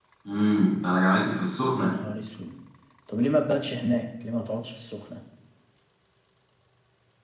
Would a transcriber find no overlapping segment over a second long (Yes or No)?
Yes